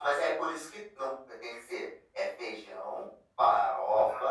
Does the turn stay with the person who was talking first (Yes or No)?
Yes